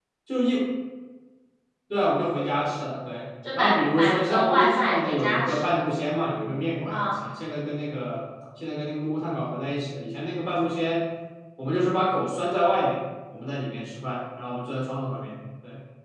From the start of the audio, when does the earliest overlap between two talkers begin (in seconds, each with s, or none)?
3.5 s